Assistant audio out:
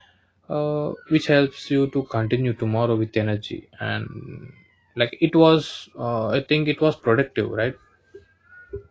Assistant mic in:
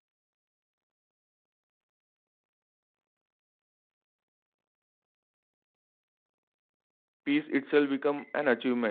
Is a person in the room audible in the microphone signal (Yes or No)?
Yes